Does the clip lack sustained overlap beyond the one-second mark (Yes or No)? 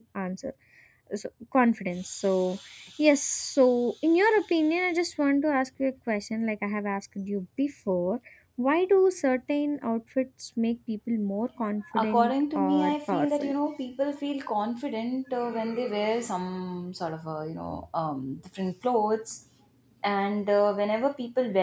No